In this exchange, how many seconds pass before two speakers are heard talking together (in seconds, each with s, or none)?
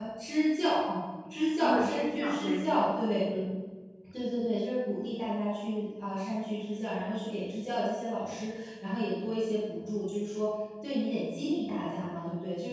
1.6 s